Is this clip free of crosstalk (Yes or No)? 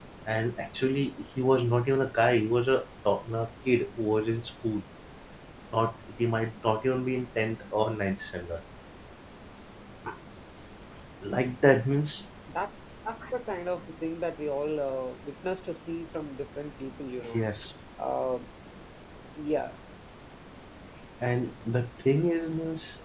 Yes